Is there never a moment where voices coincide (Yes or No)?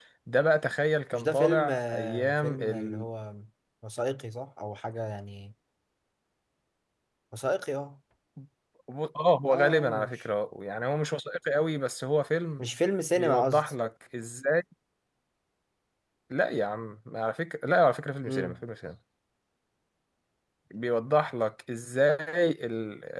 No